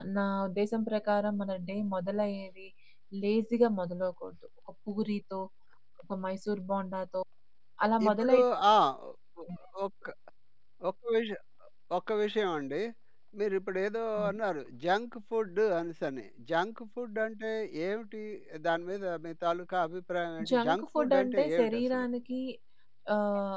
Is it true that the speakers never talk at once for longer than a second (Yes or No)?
No